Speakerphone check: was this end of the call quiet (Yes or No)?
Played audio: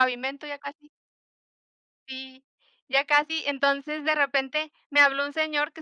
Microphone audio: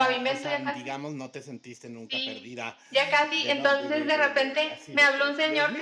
No